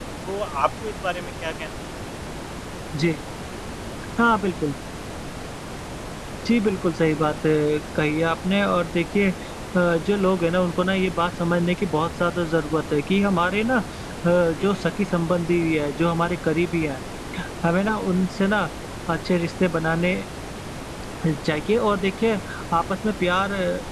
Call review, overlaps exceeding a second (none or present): none